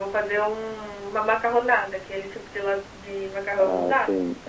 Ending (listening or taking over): taking over